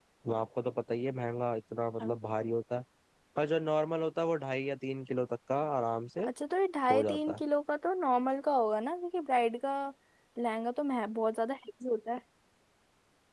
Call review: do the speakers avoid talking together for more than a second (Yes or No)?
Yes